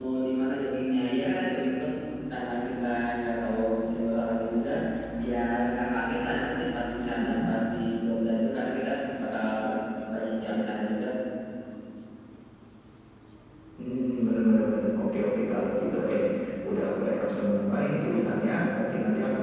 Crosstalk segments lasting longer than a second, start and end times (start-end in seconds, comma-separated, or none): none